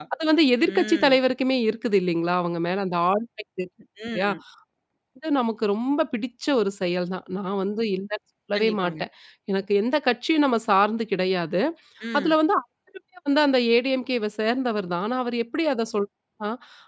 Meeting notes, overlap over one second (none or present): none